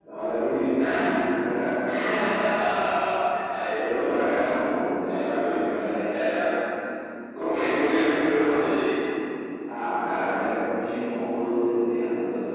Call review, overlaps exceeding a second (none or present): present